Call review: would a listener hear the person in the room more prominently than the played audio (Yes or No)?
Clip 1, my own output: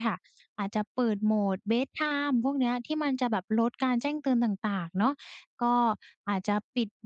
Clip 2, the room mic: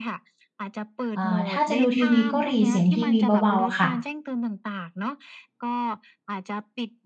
Yes